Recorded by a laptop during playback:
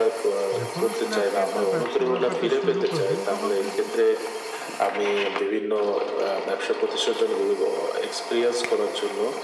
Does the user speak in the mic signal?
Yes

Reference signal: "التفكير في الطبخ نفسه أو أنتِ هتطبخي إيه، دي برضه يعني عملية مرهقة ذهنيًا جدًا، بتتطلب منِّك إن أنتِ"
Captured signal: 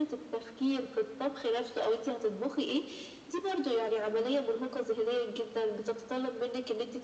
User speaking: No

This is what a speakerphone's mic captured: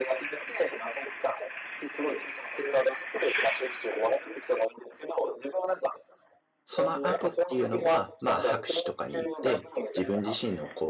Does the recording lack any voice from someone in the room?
No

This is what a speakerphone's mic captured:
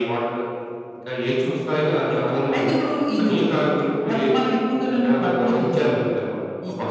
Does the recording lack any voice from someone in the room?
Yes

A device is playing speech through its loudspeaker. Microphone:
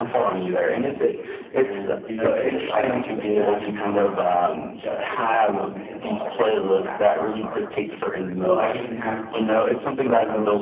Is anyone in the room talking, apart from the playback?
Yes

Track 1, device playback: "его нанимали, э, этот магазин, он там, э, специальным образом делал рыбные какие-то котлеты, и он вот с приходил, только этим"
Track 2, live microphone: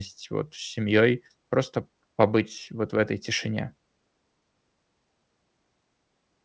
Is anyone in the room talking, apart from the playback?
Yes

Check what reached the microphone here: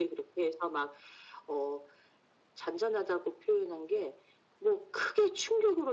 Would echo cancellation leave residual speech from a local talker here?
No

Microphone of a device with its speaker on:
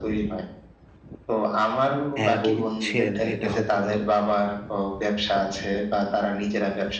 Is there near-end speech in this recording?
Yes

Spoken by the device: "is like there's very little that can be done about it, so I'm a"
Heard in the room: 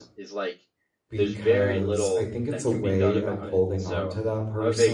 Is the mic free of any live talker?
No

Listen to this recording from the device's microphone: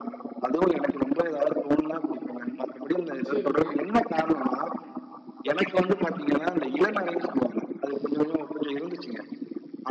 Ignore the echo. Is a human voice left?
Yes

